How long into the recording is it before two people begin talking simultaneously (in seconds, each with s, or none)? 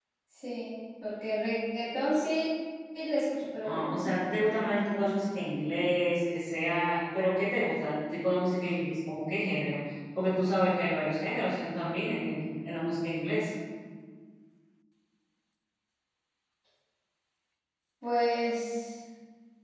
3.7 s